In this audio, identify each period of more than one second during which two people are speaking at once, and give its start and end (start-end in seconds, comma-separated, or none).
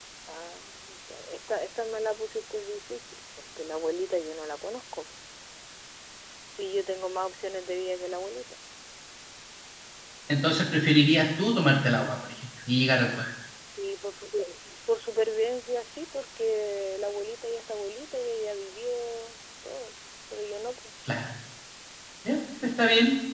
none